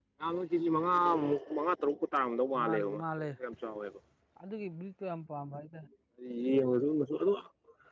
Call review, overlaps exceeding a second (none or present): none